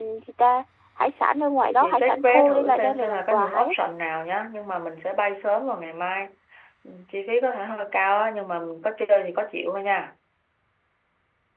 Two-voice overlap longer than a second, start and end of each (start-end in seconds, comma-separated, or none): 1.8-3.7